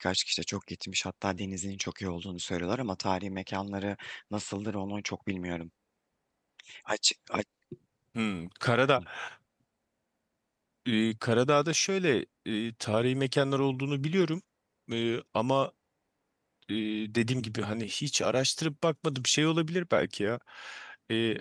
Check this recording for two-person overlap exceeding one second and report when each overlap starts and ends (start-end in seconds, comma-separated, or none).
none